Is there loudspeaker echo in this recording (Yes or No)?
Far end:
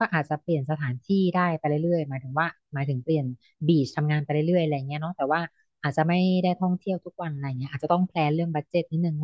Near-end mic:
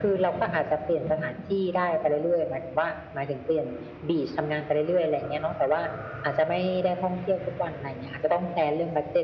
Yes